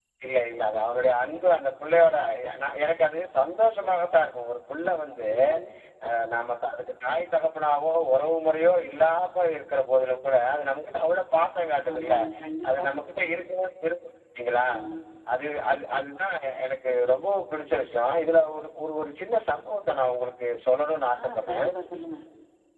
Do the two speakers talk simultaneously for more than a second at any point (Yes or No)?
No